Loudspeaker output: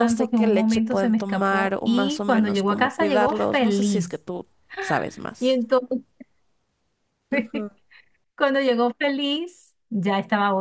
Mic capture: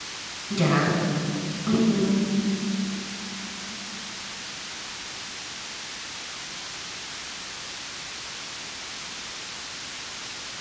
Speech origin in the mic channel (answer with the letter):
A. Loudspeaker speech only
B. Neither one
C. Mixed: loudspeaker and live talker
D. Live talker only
D